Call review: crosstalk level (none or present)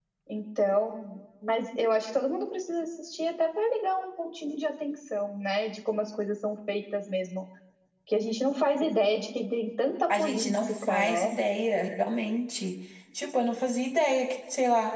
present